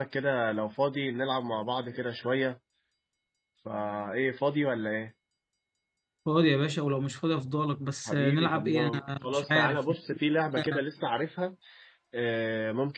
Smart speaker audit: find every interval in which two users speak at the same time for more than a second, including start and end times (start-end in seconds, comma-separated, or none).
8.1-9.8